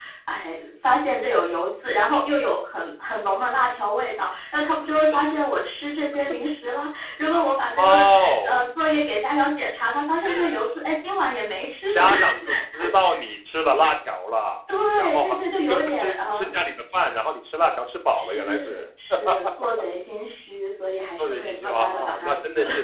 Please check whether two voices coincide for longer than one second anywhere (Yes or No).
Yes